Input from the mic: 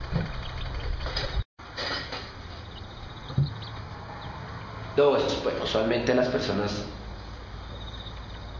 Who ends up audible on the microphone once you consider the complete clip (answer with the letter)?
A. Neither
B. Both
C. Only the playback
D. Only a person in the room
D